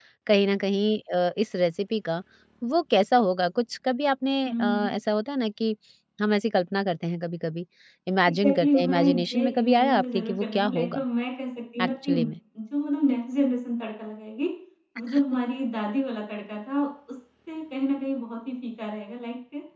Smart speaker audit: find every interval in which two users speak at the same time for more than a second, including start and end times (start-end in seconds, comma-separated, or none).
8.3-11.0